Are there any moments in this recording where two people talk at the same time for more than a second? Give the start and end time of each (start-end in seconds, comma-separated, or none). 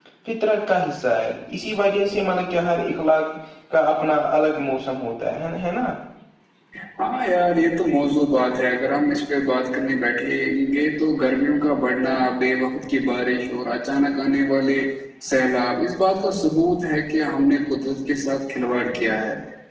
none